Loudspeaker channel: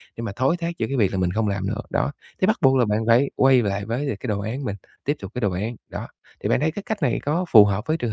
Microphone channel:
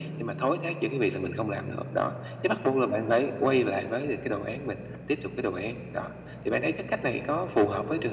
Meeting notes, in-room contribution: none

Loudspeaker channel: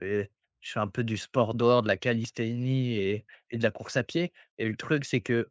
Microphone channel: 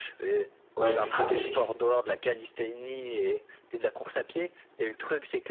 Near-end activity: present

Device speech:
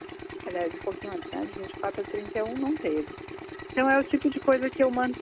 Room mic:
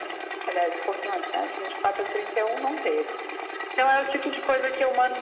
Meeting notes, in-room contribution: none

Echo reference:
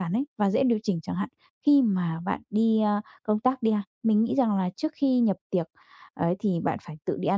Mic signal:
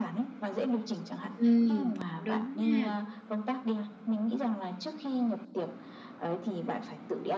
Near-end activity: present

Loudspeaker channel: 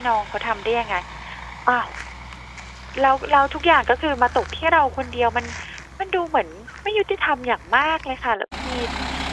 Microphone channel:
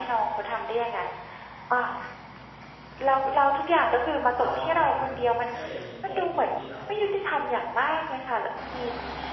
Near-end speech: present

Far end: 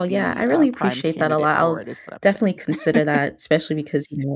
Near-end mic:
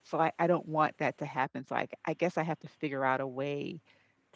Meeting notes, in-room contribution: present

